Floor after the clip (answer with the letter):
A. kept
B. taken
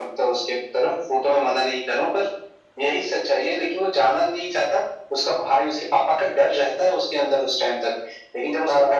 A